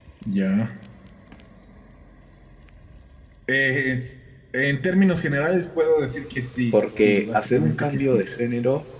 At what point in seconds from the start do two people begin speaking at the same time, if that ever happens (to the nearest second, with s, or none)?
7 s